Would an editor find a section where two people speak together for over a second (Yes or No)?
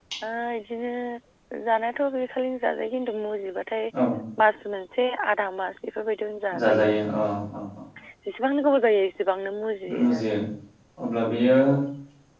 No